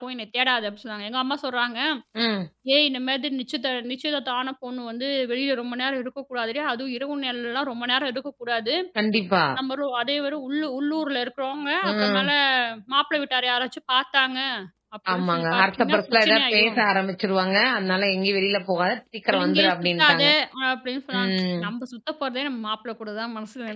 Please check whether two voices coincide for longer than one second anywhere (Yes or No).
Yes